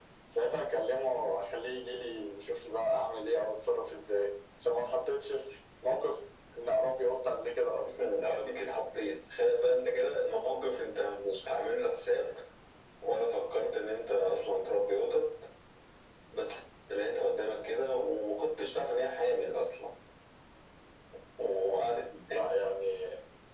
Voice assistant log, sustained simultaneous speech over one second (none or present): none